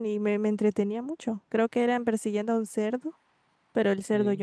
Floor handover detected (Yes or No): No